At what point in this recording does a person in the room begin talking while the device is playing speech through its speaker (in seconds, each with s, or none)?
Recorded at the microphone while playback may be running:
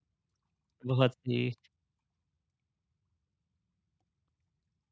0.8 s